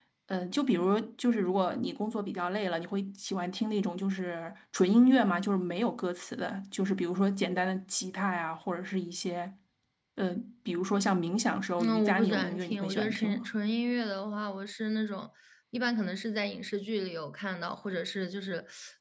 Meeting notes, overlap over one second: present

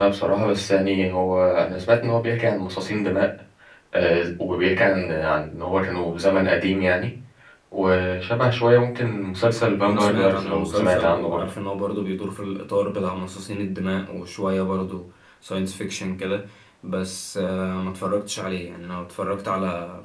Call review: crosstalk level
present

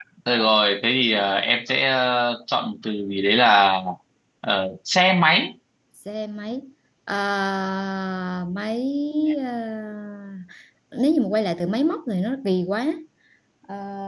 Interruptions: none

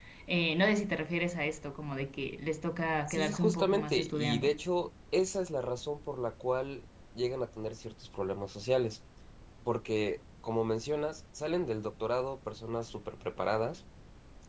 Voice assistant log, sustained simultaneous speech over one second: present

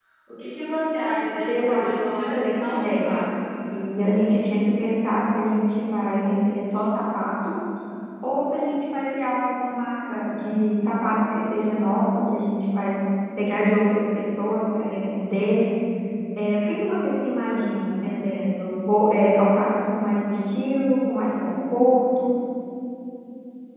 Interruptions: present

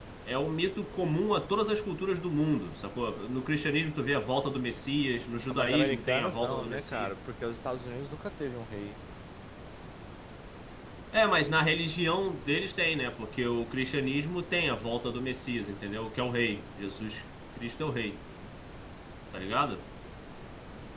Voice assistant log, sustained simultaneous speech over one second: present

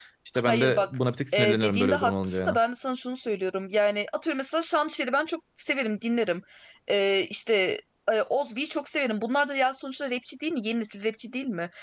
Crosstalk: present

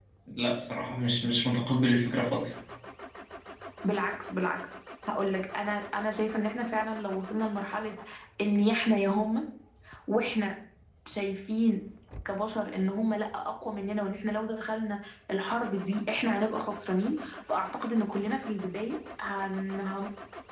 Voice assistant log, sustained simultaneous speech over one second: none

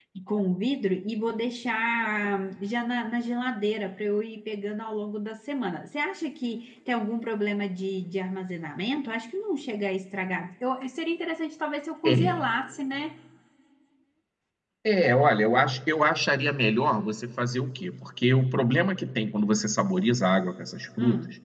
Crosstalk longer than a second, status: none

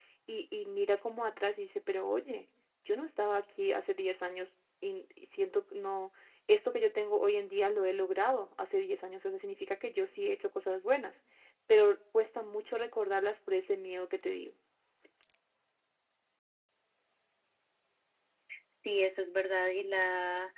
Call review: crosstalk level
none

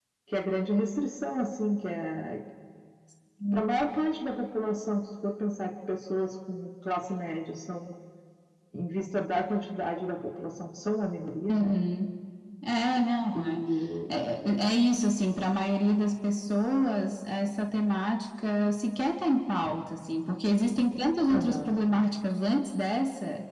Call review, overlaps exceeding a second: none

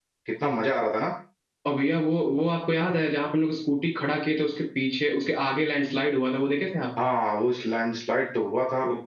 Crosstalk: none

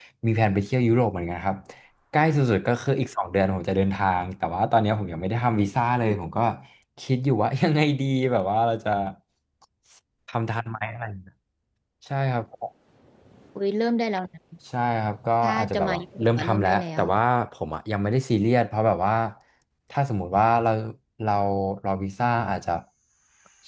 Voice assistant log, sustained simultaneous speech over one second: present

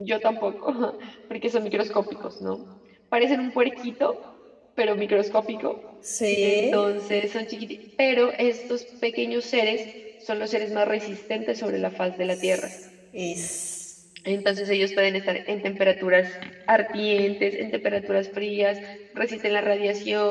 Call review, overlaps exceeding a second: none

